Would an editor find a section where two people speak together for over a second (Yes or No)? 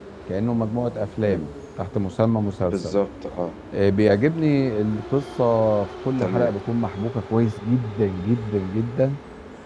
No